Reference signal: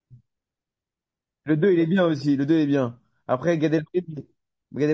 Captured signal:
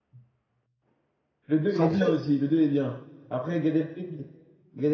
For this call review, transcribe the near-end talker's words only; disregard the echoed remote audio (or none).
113.